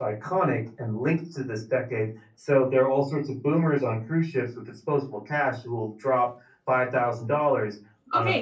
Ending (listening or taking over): taking over